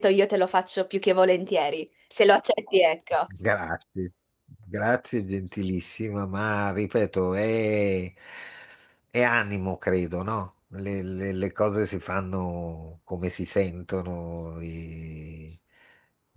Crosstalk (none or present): none